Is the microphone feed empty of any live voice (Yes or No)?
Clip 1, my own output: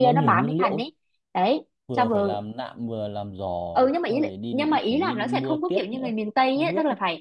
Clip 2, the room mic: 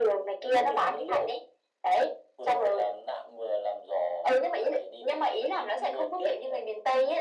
Yes